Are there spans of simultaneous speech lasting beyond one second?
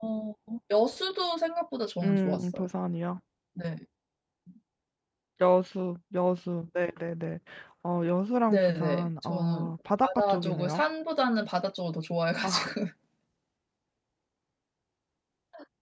Yes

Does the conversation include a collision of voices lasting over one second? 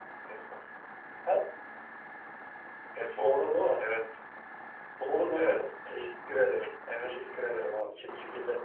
No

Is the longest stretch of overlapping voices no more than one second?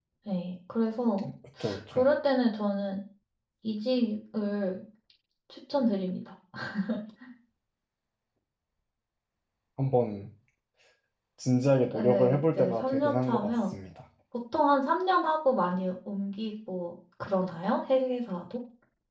No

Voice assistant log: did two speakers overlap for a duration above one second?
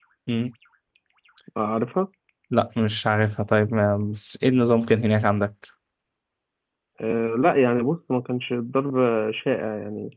No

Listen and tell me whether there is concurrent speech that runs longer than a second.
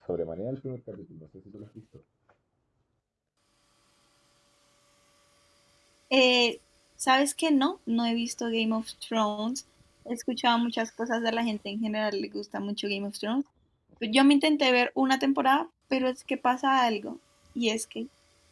No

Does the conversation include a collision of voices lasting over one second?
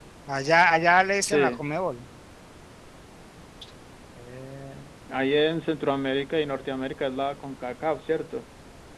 No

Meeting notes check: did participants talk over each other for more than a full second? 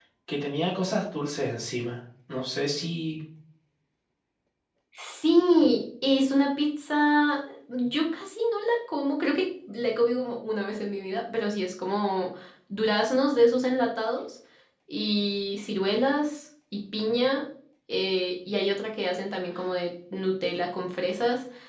No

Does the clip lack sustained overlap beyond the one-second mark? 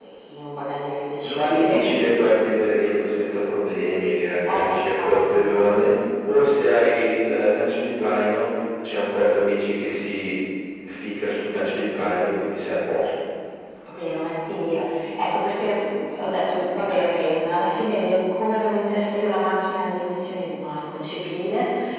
No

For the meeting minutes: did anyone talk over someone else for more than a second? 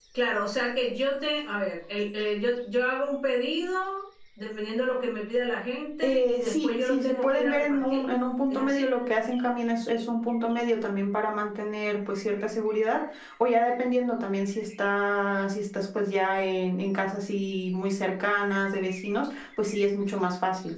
Yes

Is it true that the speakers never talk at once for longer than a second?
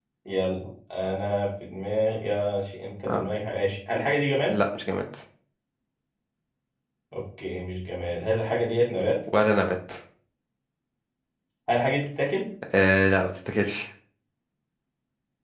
Yes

